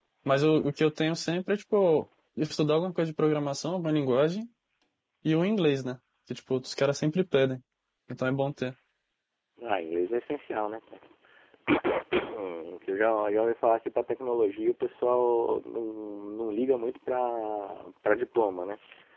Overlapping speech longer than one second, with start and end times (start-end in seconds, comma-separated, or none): none